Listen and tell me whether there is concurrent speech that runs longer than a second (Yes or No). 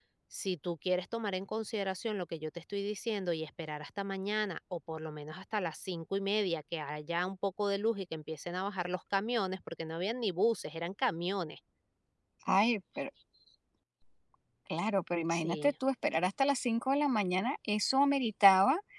No